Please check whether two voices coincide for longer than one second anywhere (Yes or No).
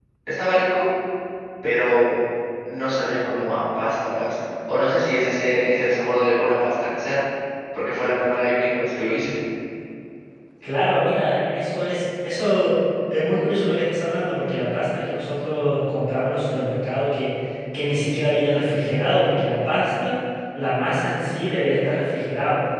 No